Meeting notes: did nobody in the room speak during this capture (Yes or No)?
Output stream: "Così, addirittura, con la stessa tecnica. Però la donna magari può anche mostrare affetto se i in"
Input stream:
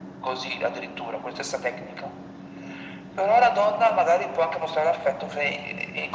Yes